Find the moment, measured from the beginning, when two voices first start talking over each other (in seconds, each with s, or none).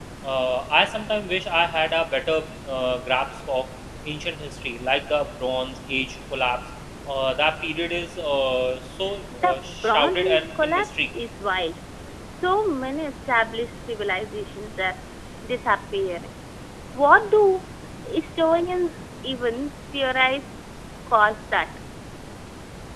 9.3 s